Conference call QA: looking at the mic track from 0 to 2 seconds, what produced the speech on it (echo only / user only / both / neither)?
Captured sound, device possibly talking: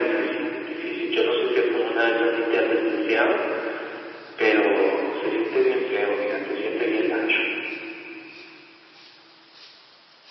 echo only